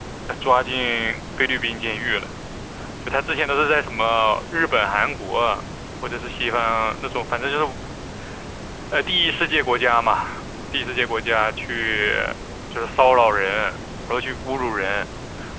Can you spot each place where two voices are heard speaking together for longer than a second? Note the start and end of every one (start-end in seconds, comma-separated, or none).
none